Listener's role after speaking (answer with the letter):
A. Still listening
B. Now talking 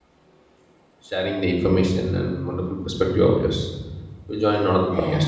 B